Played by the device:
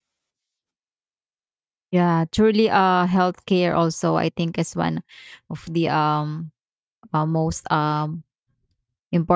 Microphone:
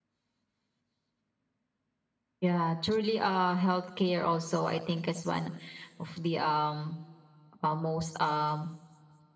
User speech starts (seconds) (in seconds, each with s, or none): none